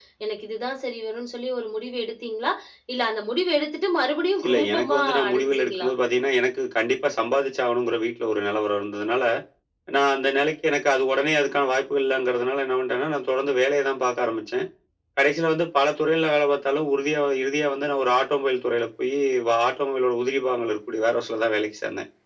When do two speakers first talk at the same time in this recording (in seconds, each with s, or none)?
4.4 s